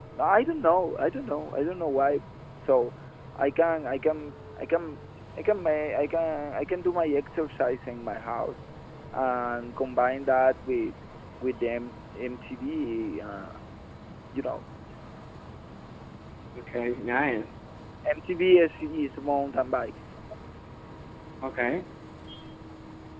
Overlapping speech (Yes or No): No